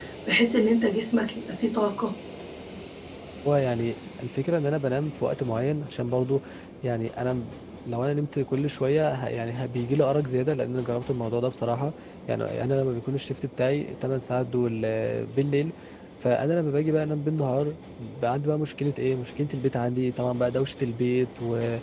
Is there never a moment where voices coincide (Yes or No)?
Yes